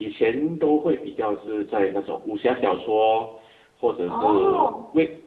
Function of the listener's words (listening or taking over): listening